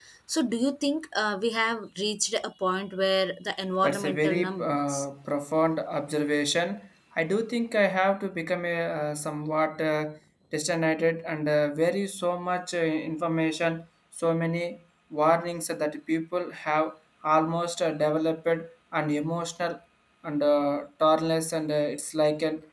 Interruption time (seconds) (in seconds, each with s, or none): 3.8 s